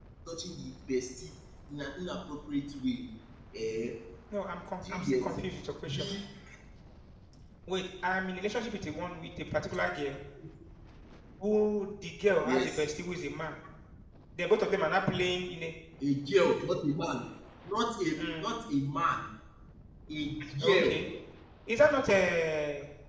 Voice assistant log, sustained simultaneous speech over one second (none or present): none